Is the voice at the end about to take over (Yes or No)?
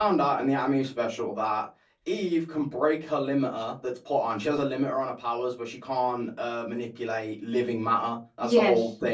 No